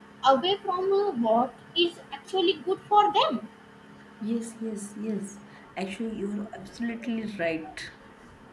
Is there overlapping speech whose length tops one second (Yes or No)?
No